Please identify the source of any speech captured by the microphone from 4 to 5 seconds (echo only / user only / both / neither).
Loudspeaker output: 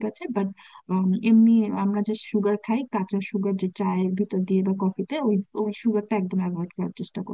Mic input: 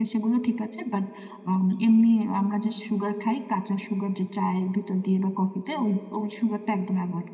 echo only